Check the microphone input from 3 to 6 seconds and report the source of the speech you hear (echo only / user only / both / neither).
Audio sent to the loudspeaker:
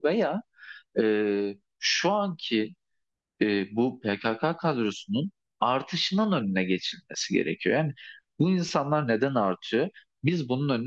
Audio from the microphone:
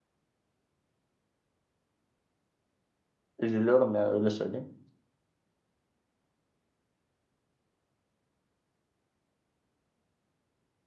user only